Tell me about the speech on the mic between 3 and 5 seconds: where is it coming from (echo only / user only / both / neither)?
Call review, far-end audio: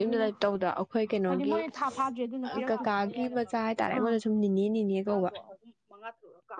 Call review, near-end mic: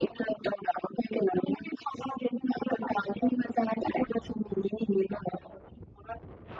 echo only